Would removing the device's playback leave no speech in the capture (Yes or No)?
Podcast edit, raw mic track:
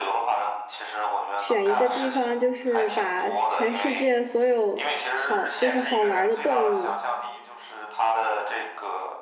No